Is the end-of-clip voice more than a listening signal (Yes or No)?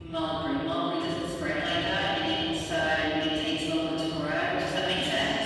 Yes